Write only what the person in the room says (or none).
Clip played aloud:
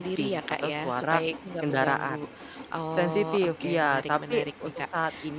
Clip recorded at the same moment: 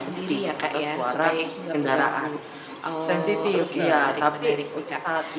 dosen.